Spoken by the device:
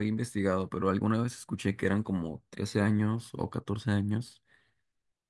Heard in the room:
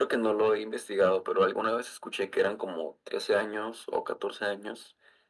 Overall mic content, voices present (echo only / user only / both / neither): echo only